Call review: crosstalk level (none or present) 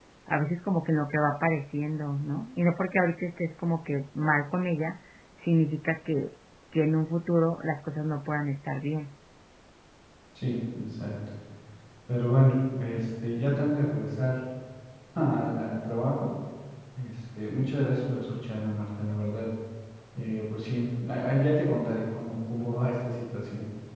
none